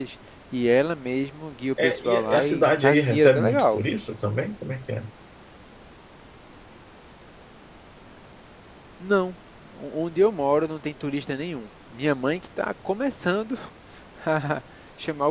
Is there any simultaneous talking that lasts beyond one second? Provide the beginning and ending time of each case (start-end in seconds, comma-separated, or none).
1.9-3.8